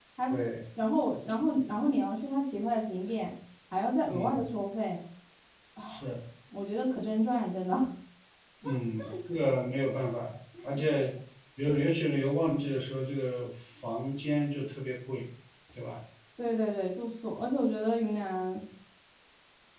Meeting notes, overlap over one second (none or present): none